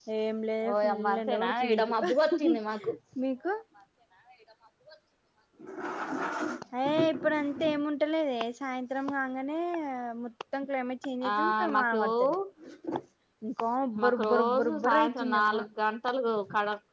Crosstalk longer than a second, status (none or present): present